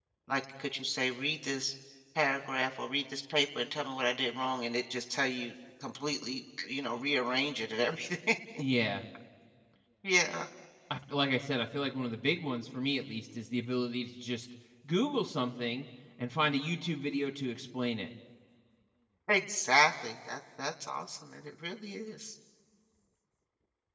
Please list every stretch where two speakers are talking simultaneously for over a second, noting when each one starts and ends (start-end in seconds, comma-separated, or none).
none